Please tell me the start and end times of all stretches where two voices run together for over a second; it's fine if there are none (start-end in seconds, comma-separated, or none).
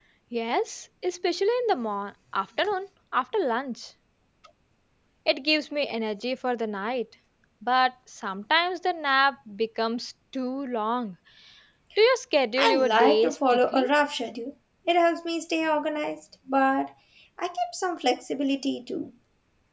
12.6-13.9